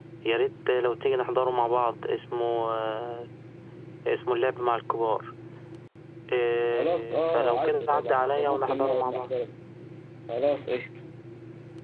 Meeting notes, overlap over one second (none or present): present